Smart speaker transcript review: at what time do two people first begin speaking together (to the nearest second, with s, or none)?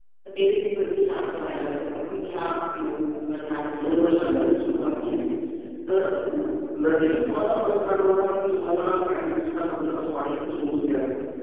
4 s